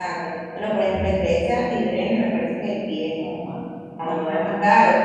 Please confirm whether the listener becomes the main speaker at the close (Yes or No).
No